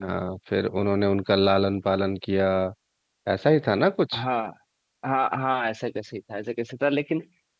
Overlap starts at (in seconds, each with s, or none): none